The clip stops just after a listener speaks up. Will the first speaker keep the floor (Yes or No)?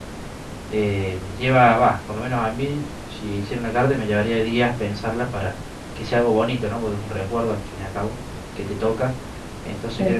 Yes